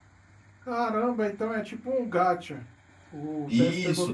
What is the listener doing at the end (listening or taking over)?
taking over